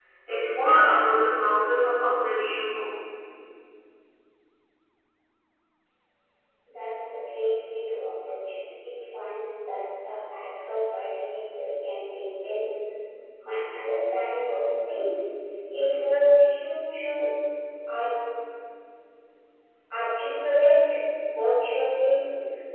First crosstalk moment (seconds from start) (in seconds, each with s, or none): none